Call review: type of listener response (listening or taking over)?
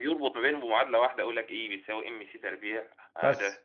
taking over